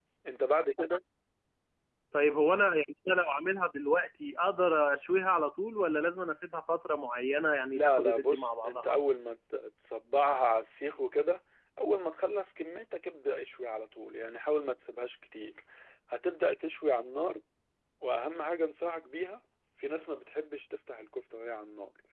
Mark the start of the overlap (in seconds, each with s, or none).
7.7 s